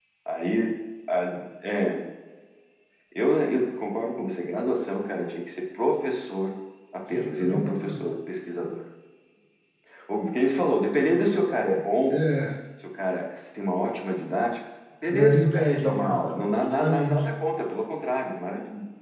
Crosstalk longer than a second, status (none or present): present